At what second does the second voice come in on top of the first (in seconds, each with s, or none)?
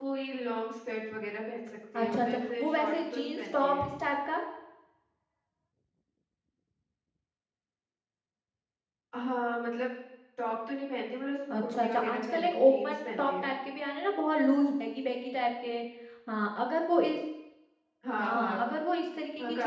2.0 s